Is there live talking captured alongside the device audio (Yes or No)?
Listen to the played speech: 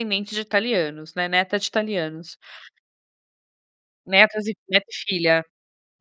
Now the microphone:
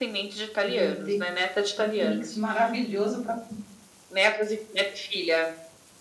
Yes